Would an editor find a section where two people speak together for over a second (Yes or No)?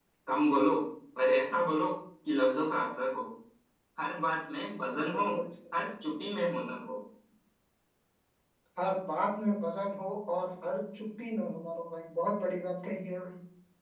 No